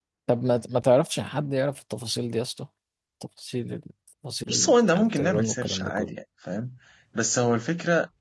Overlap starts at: 4 s

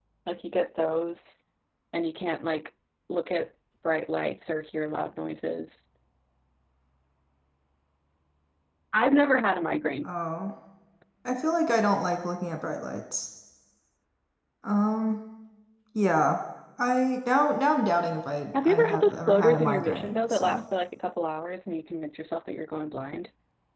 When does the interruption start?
19 s

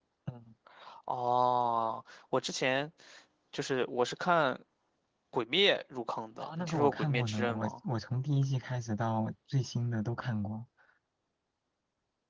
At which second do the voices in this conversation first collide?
6 s

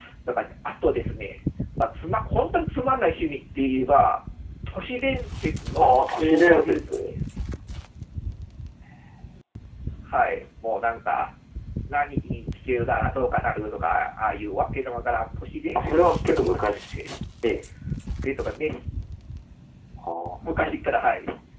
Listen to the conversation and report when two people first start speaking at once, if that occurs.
6 s

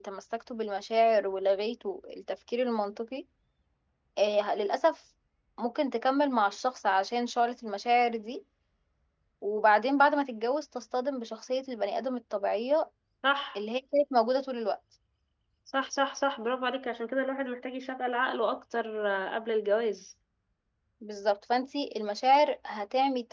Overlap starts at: none

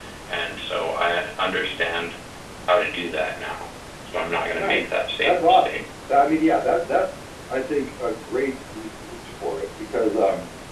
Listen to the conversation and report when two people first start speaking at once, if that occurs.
5 s

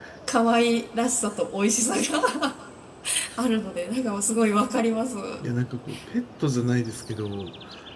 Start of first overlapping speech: none

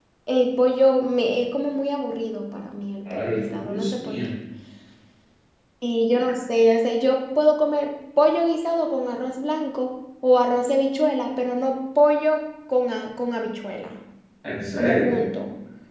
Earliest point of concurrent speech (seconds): 3 s

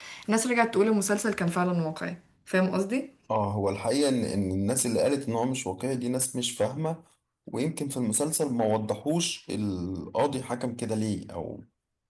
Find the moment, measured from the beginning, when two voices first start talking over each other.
none

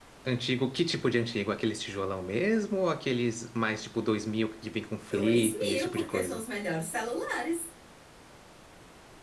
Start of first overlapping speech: 5 s

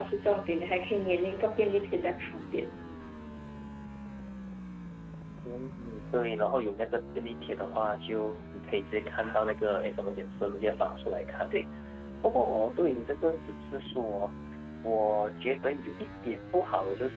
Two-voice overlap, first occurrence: none

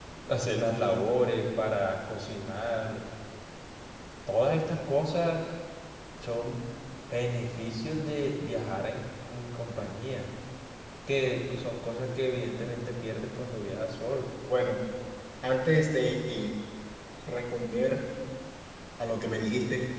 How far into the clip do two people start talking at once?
none

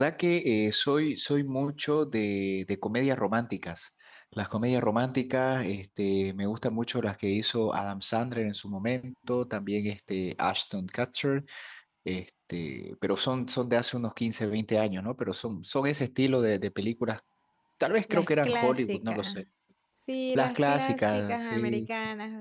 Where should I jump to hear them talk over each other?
18 s

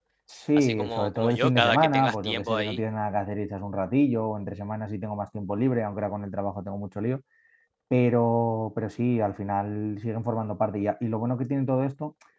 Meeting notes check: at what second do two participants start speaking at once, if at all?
1 s

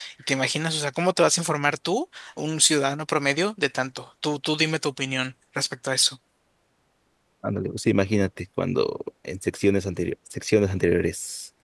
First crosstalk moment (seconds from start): none

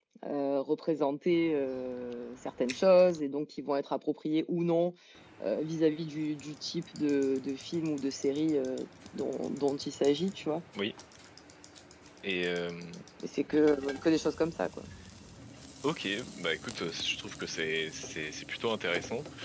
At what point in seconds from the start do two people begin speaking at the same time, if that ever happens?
none

